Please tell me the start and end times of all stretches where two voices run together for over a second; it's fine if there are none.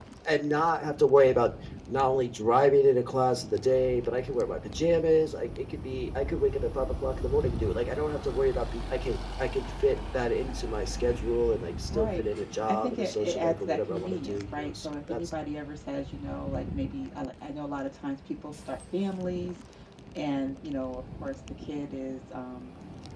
12.7-15.2

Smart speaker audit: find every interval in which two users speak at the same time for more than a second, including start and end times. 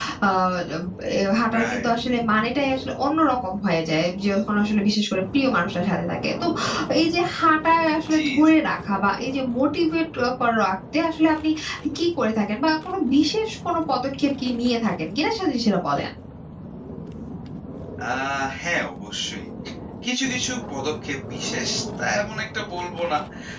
none

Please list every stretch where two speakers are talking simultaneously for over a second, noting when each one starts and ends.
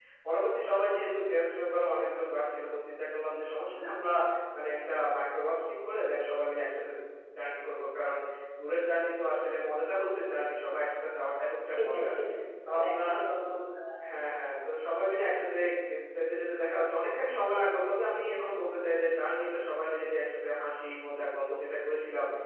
none

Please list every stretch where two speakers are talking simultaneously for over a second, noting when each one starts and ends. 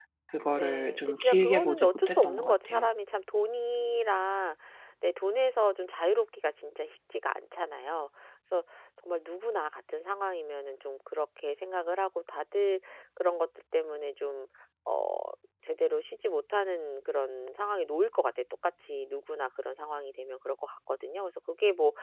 0.5-2.9

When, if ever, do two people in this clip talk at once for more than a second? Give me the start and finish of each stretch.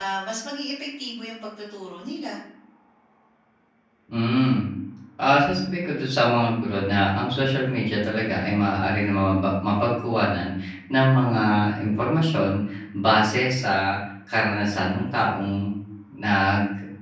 none

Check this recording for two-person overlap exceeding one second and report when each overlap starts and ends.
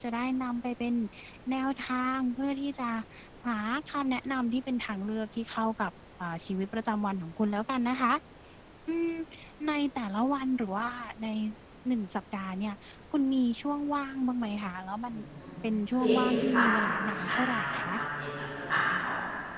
15.9-18.0

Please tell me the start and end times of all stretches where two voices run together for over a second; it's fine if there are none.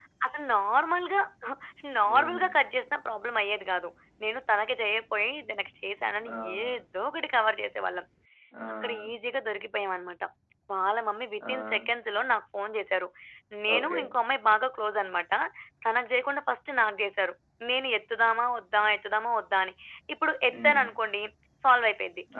none

